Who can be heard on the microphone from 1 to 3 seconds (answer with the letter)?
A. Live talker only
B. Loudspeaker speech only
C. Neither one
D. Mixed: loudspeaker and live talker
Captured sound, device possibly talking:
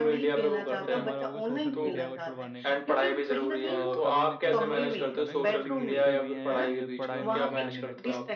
D